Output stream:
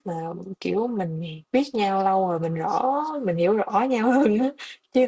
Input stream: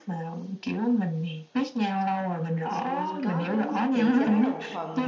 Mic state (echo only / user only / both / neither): both